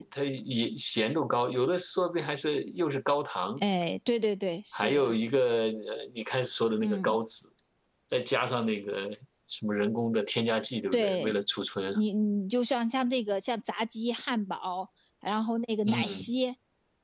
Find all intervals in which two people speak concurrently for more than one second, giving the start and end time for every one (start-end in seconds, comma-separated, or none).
none